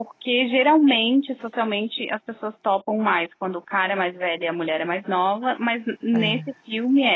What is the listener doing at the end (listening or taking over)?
listening